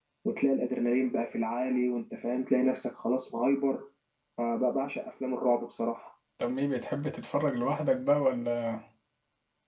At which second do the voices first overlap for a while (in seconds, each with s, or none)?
none